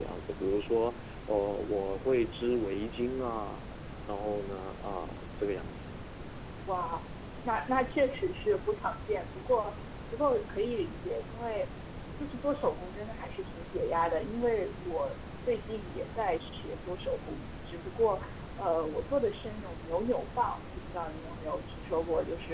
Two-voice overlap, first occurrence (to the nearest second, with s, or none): none